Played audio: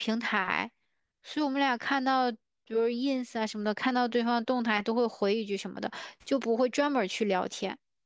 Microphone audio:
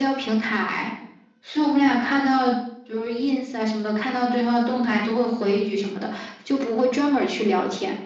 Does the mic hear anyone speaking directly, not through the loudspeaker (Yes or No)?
No